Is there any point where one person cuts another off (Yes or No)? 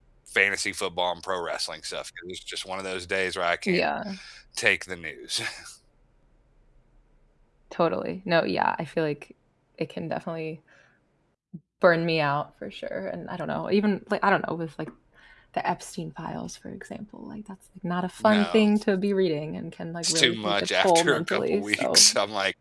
Yes